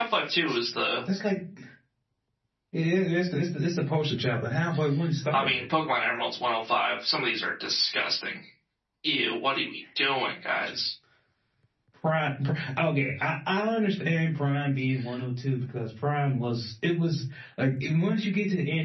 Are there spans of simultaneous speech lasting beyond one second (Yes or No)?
No